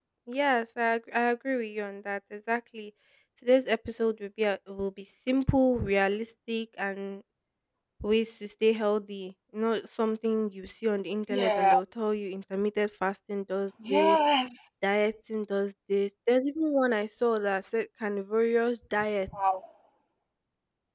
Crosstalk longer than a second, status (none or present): none